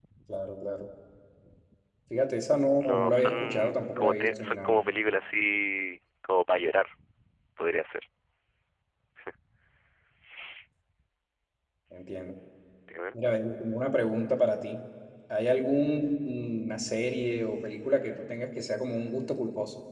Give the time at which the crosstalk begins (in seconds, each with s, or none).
2.8 s